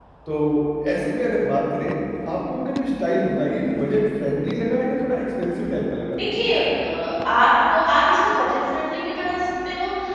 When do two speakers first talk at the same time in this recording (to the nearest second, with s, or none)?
none